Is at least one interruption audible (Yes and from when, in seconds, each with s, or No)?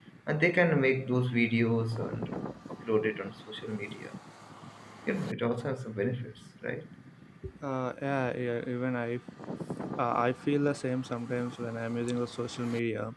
No